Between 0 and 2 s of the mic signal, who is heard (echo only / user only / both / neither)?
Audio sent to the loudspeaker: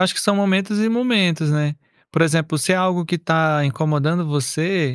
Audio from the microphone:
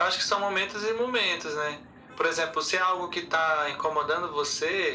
echo only